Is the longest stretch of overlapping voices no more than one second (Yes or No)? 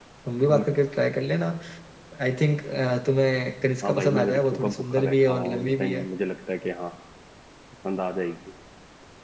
No